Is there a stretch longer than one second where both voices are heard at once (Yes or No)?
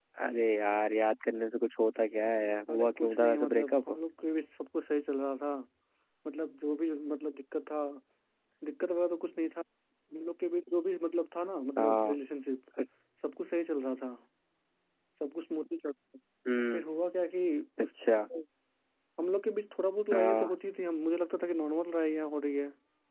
Yes